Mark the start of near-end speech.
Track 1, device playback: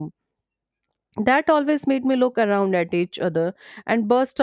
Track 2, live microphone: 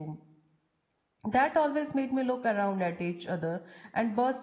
none

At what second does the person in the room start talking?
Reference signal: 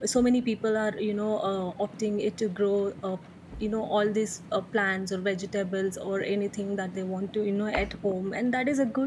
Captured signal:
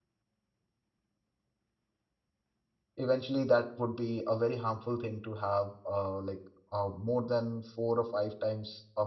3 s

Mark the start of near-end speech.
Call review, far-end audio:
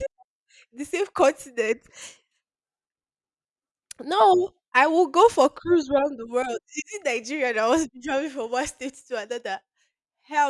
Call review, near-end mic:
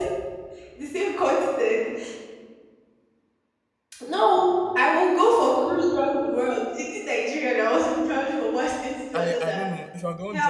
9 s

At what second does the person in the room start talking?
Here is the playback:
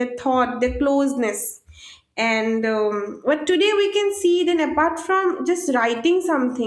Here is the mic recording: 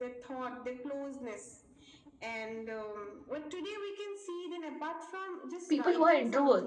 6 s

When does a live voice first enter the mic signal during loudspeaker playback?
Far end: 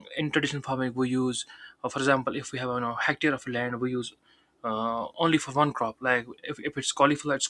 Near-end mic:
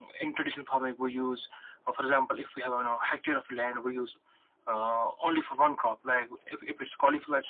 none

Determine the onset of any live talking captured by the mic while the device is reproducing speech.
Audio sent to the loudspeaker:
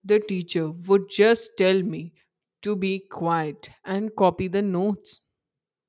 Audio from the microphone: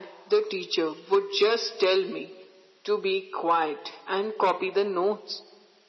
none

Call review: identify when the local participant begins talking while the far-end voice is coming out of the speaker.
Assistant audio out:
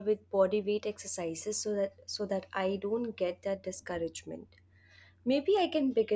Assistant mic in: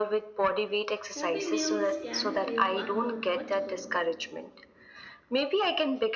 1 s

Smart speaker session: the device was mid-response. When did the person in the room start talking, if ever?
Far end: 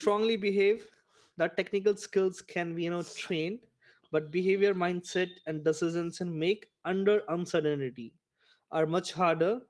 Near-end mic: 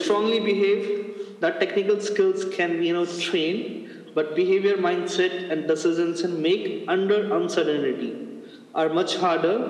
none

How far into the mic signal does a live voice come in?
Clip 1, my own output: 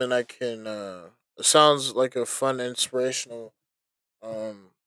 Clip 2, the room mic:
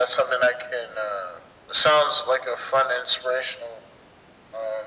none

